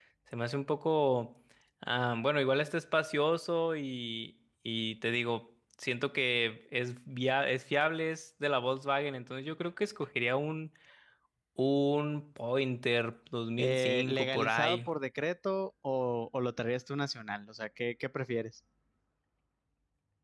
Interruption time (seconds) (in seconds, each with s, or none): 13.6 s